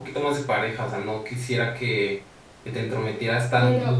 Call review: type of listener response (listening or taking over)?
taking over